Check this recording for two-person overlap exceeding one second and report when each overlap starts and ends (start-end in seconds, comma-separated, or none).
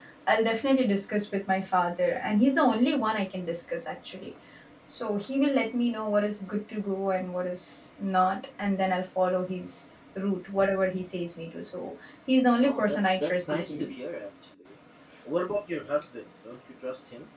12.6-13.9